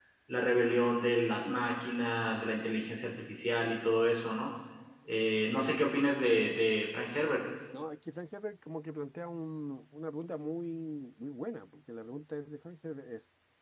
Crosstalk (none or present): none